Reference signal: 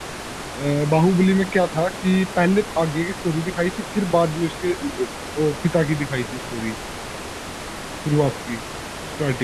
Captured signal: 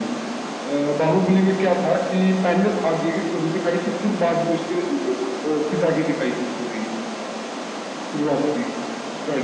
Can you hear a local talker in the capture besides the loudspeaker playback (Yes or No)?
No